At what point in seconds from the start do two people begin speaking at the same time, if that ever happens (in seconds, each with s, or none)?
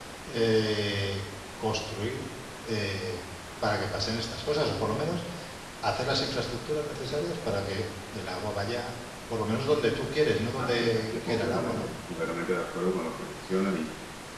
10.6 s